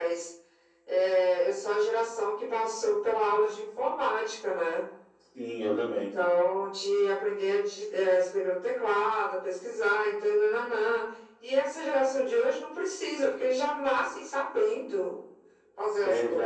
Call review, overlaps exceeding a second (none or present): none